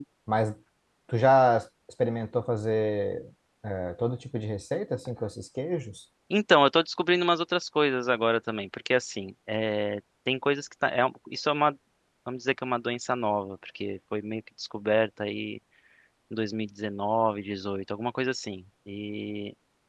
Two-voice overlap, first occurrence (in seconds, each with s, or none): none